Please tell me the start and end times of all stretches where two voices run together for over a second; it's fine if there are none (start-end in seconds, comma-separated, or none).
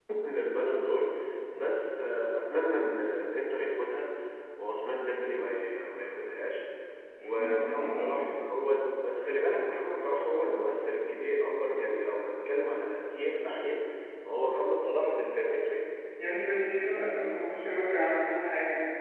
none